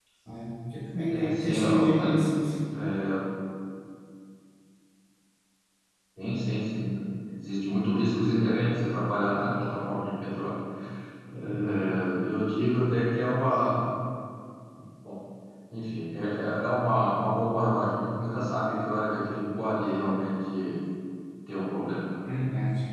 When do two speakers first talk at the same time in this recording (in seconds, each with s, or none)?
1.1 s